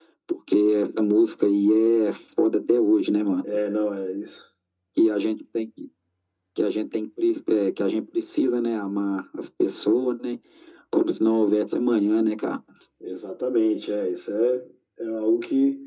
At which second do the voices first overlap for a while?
none

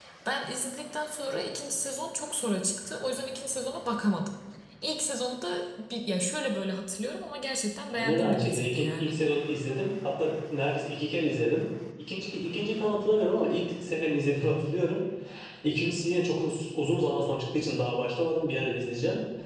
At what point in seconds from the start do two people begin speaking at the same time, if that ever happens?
7.9 s

